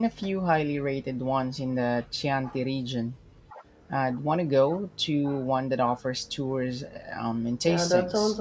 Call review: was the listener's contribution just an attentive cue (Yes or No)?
No